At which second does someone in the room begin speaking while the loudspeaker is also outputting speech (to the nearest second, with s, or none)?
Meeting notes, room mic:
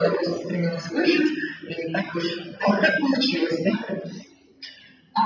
none